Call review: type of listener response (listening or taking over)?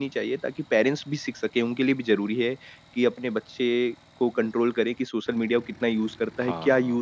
listening